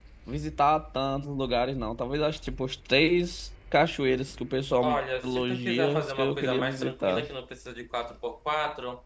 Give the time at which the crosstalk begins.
5 s

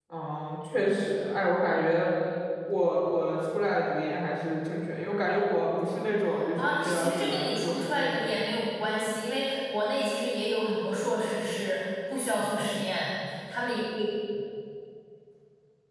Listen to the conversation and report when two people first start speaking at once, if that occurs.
7 s

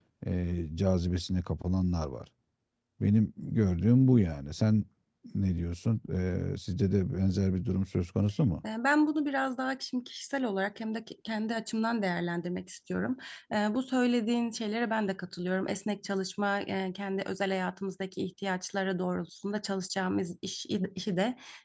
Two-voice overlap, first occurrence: none

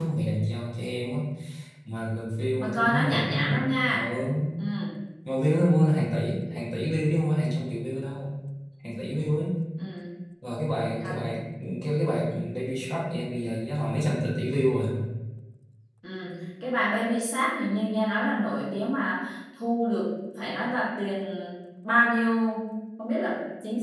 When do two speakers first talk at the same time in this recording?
3 s

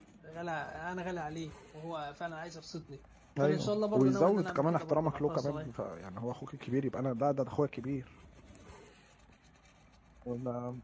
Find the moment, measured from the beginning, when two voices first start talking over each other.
3 s

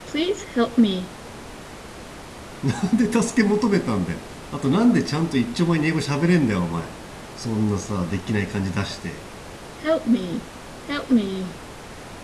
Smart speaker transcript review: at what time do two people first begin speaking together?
none

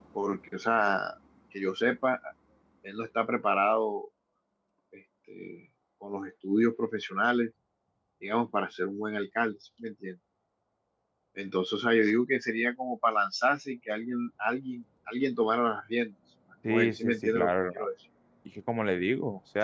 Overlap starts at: 17 s

